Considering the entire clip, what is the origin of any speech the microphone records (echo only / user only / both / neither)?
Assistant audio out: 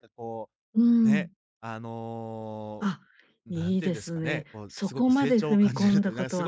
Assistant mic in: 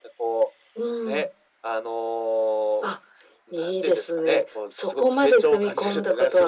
echo only